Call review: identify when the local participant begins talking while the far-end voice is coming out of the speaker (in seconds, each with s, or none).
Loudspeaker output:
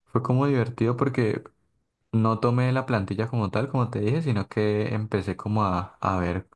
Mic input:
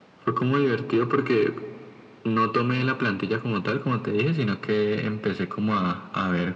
none